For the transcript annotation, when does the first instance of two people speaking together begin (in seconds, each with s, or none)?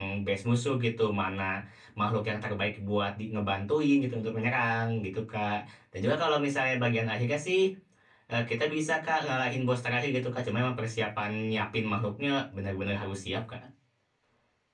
none